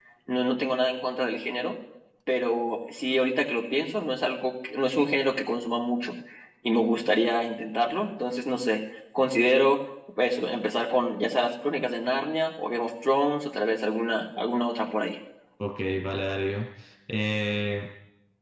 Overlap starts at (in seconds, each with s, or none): none